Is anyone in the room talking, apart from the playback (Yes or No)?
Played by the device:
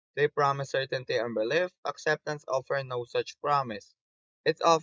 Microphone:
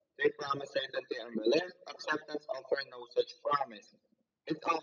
No